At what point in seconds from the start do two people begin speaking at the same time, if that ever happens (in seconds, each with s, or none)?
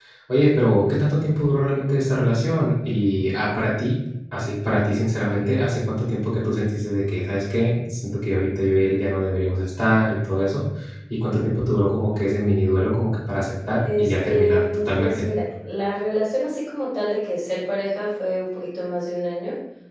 14.0 s